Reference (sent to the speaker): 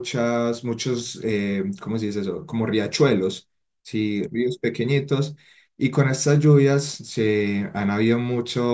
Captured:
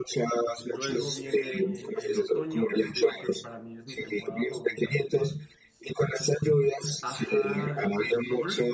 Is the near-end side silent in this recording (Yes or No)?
No